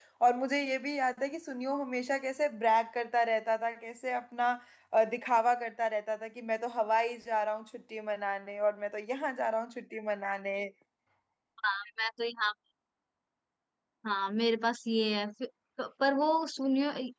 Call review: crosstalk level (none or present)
none